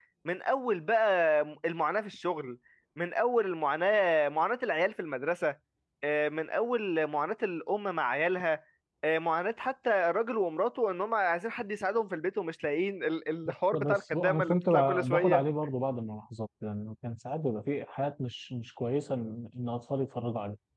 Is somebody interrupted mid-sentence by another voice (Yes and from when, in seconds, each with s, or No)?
Yes, from 13.4 s